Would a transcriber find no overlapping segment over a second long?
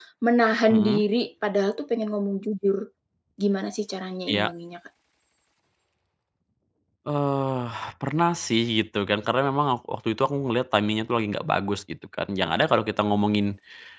Yes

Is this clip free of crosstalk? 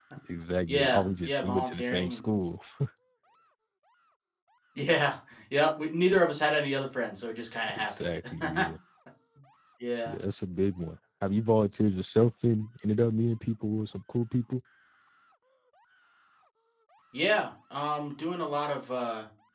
No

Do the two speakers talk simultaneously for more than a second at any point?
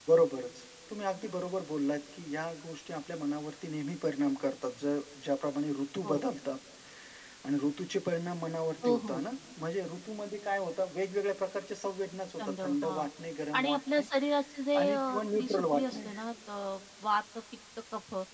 Yes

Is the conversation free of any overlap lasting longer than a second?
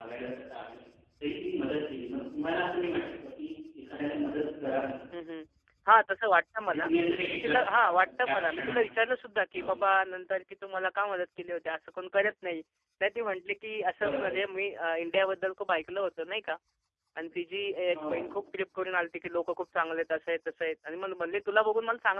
No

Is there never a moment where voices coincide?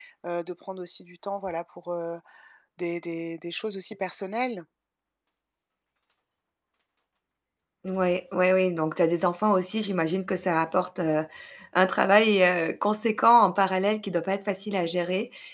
Yes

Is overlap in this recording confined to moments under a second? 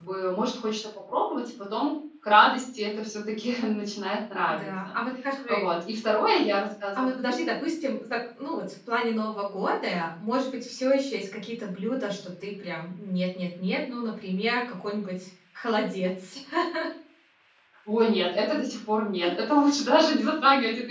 Yes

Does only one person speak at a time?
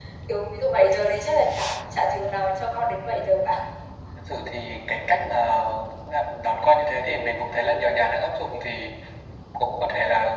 Yes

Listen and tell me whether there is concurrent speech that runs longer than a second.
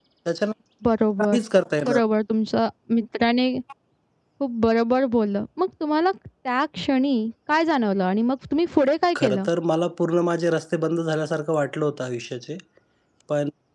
No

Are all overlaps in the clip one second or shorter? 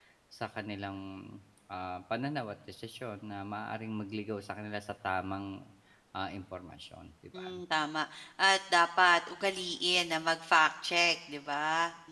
Yes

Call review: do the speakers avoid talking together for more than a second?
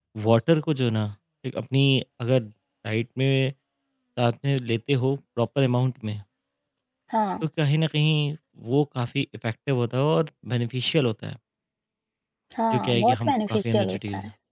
No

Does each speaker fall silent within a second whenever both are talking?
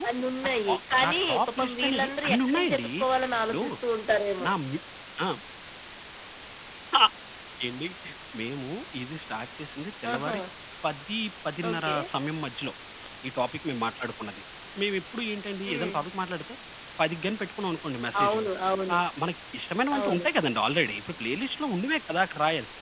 No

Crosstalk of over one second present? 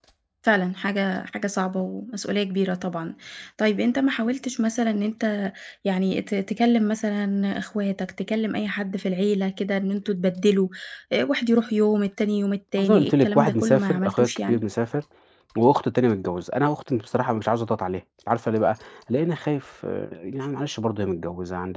Yes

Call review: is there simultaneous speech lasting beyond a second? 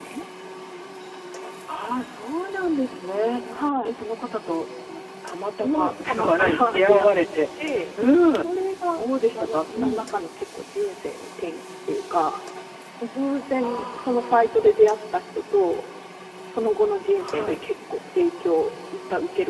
Yes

